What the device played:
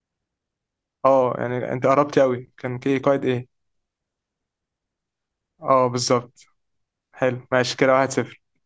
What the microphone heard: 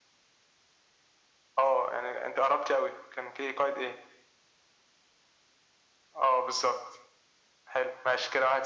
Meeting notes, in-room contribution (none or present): none